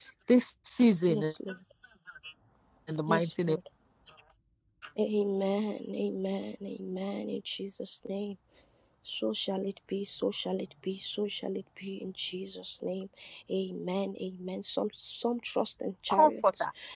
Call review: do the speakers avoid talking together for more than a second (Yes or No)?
Yes